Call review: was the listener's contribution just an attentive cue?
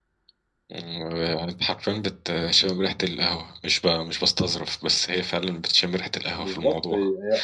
No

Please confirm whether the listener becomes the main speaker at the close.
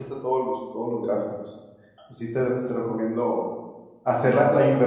No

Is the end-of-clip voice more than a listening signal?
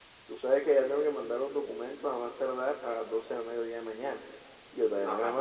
No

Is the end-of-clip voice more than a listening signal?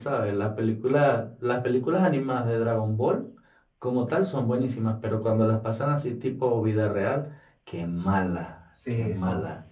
Yes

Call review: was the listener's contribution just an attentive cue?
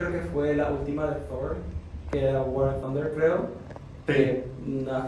Yes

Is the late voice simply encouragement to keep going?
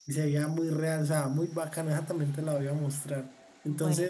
Yes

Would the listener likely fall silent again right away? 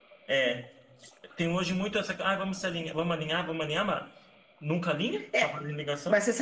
No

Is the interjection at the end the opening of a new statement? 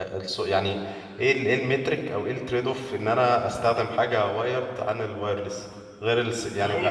No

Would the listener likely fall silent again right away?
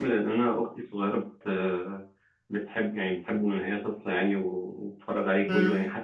Yes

